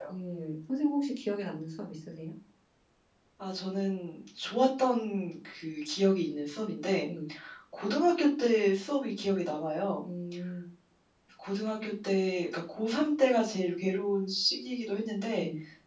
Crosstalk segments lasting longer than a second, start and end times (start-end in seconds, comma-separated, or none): none